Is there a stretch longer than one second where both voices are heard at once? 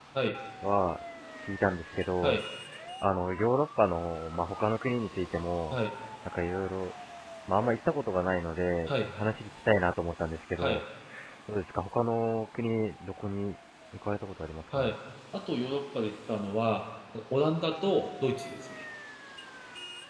No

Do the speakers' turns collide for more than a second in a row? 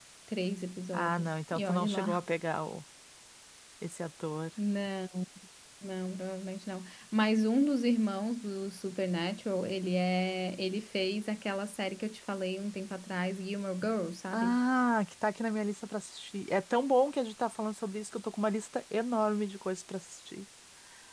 Yes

